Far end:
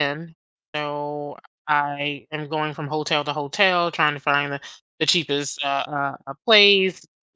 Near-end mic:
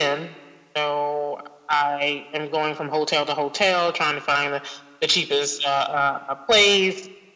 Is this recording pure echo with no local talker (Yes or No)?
Yes